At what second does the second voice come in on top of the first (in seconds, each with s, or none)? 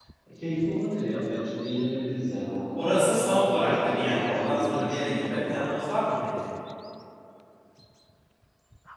2.7 s